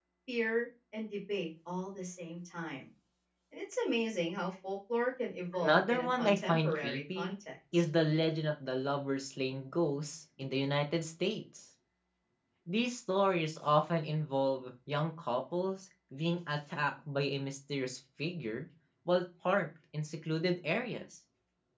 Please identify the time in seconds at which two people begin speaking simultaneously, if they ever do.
5.5 s

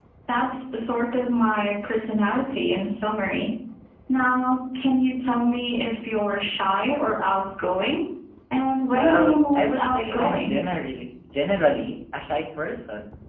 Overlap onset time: 8.9 s

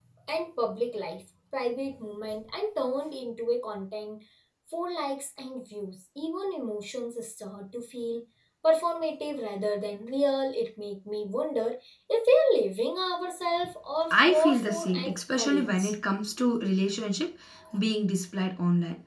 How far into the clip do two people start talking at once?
14.1 s

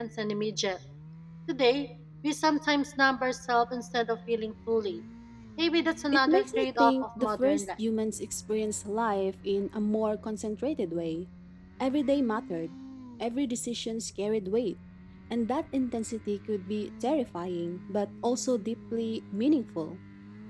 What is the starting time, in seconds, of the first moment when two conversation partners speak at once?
6.3 s

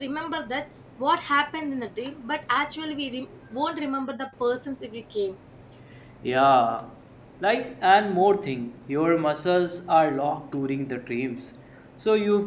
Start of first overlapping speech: none

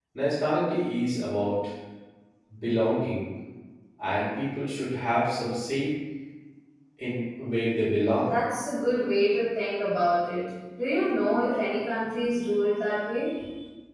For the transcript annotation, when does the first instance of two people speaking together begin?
none

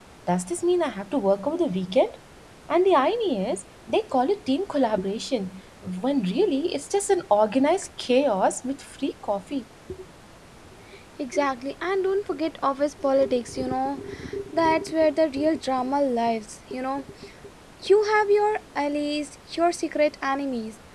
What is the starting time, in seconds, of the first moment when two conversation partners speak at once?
none

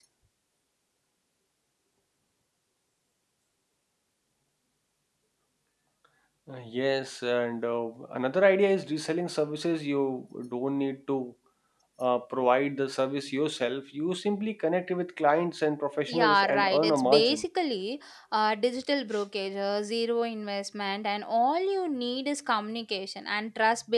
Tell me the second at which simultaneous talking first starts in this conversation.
16.1 s

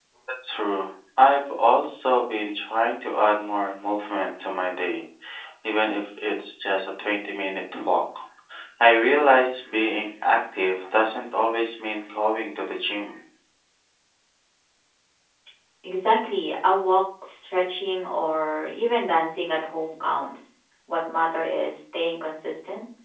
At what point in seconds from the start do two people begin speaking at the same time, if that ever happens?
none

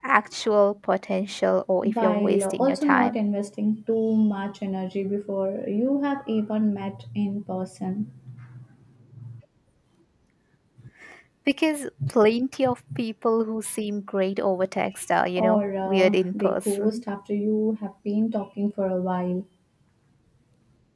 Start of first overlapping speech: 1.8 s

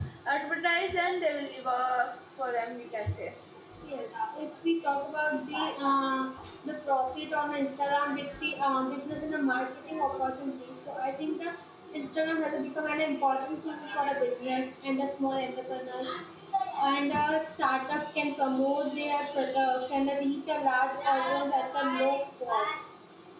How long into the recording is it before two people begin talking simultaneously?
none

